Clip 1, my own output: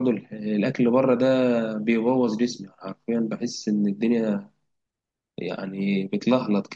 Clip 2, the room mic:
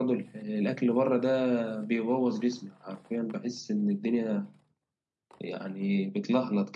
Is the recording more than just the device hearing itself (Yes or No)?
No